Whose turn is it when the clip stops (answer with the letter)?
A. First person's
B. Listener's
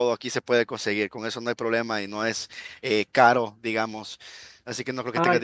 A